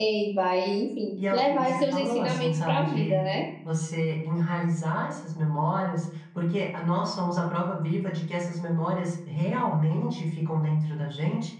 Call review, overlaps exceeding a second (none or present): present